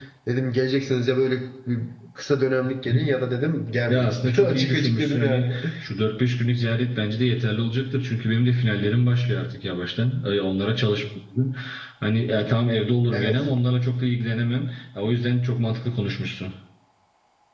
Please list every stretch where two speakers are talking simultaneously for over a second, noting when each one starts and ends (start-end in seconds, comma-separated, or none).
3.9-5.5